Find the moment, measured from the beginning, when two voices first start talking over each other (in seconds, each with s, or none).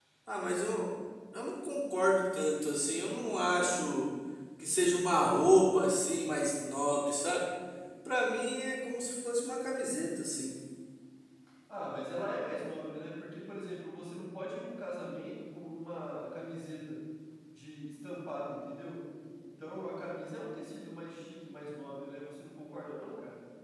none